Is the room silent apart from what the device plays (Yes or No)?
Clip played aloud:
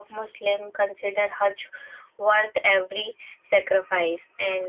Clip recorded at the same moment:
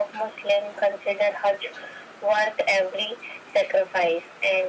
Yes